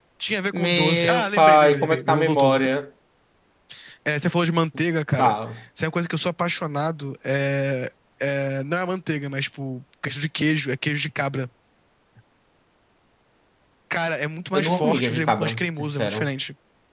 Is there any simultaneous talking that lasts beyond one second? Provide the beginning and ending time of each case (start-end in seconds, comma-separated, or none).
0.5-2.7, 14.5-16.3